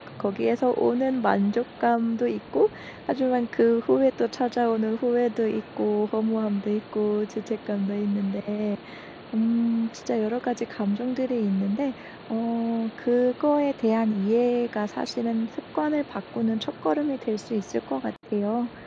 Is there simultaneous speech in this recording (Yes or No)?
No